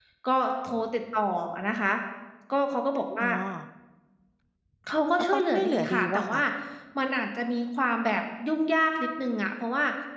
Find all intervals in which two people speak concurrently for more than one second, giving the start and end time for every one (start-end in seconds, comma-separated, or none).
5.2-6.4